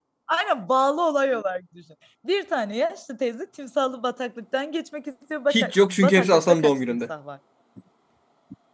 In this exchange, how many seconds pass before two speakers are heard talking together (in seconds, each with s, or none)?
5.5 s